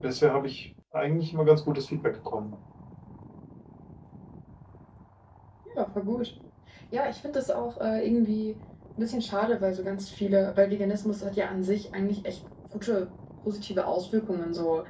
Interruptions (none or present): none